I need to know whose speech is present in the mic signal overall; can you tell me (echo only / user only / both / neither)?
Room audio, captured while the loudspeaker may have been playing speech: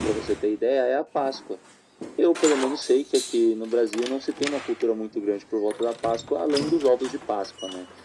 echo only